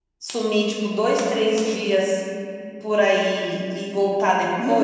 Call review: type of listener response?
taking over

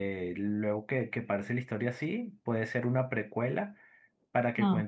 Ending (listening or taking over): listening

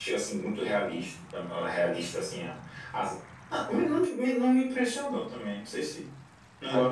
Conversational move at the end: taking over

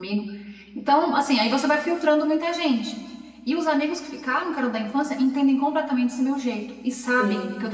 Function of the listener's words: listening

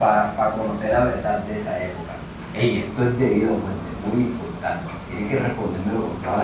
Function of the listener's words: taking over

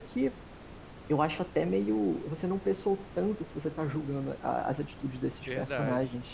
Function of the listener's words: taking over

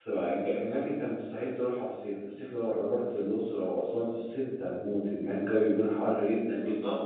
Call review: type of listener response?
taking over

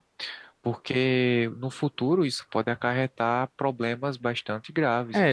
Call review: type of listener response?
taking over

